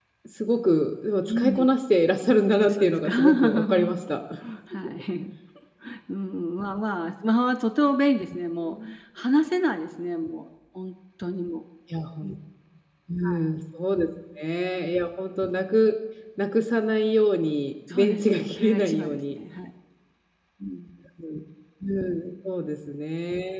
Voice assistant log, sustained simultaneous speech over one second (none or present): present